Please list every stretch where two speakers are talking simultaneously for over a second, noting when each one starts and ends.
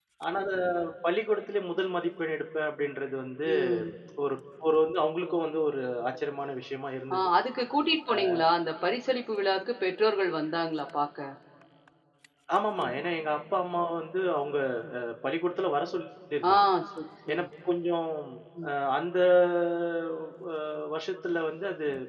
none

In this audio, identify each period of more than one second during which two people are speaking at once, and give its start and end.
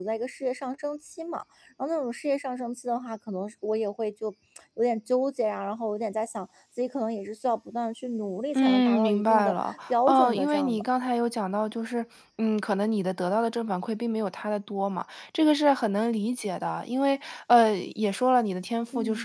8.6-10.8

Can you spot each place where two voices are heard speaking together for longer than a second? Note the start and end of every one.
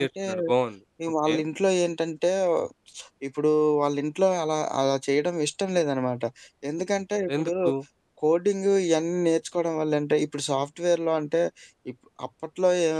none

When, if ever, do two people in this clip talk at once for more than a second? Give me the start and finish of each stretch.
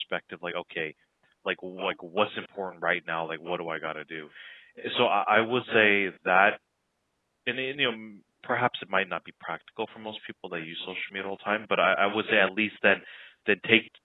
none

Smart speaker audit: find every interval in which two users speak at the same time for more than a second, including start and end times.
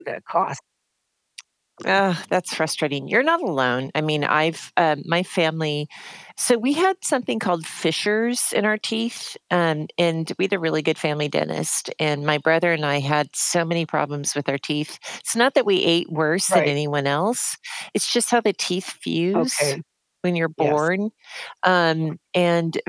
none

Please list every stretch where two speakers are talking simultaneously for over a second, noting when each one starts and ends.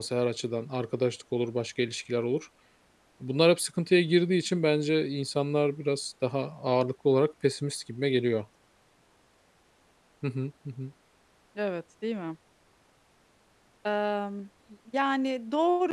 none

